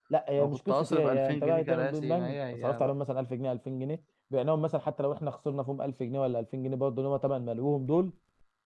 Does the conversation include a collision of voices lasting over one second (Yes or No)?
Yes